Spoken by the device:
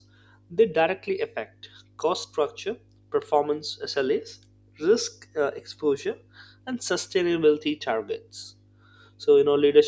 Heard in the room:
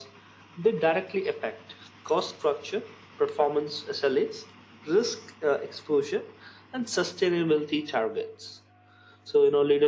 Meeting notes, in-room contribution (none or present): none